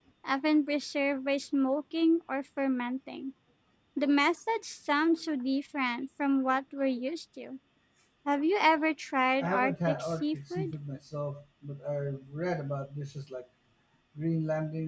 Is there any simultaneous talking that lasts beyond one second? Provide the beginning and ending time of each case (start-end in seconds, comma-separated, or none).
9.4-10.7